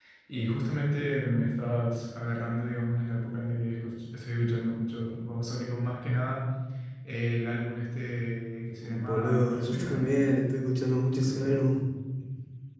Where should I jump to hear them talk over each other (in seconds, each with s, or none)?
8.8 s